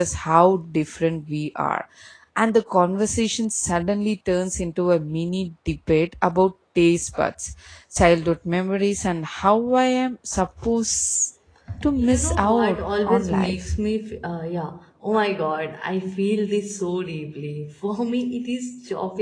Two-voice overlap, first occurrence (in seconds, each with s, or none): 12.0 s